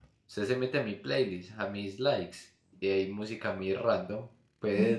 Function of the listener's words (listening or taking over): listening